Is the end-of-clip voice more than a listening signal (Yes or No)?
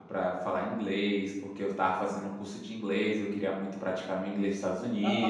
Yes